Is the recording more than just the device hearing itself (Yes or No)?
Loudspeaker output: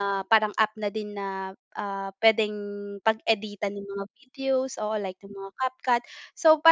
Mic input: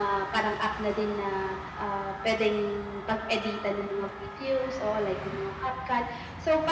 No